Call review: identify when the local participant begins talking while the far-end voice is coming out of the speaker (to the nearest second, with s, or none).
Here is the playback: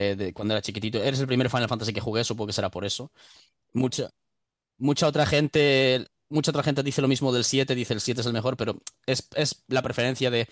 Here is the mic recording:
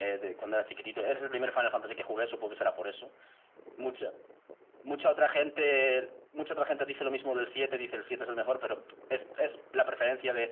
none